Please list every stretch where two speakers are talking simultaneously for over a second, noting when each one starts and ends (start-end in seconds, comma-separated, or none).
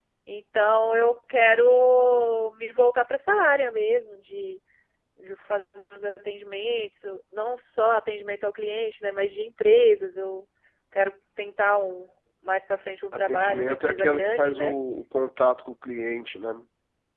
13.3-14.7